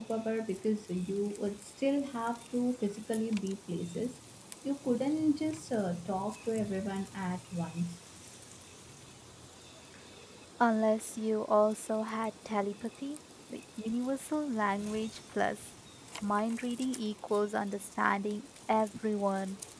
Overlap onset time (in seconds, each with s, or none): none